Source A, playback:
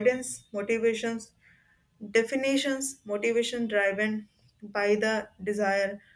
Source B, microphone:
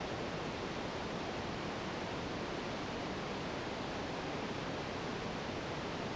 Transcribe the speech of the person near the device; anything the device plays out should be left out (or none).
none